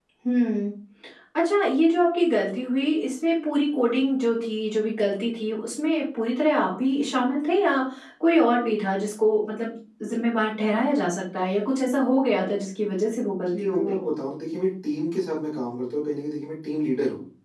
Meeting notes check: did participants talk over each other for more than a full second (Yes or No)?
No